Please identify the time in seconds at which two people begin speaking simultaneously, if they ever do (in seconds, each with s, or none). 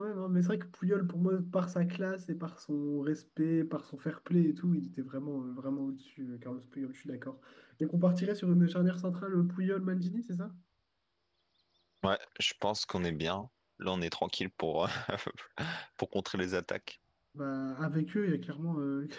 none